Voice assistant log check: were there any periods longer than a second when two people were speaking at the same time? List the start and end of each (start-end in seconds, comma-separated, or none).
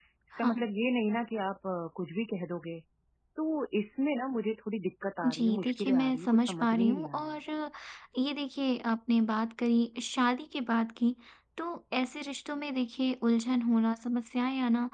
5.2-7.3